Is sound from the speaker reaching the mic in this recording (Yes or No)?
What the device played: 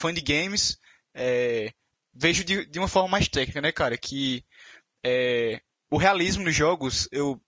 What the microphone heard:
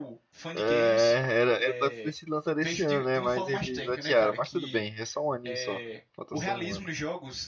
Yes